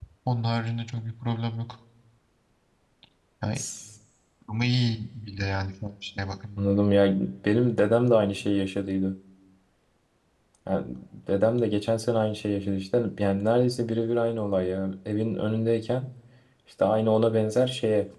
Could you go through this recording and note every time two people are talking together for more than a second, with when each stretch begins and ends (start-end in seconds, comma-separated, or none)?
none